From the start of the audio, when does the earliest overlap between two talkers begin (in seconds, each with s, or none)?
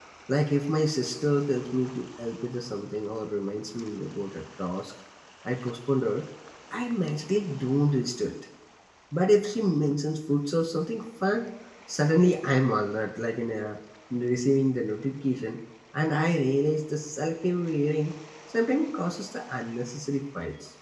none